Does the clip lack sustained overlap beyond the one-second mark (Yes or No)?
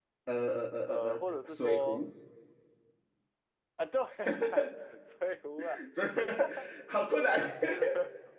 No